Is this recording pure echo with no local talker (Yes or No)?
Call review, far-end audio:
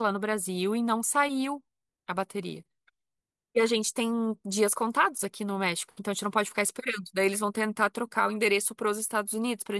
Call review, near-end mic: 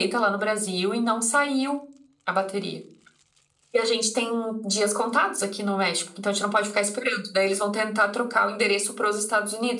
Yes